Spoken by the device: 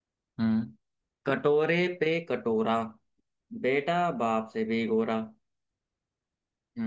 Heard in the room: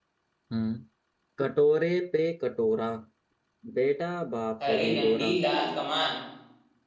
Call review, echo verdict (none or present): present